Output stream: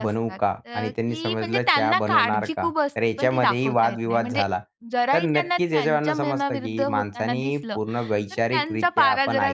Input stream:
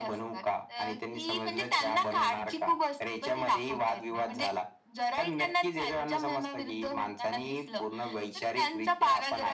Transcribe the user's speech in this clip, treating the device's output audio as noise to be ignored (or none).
none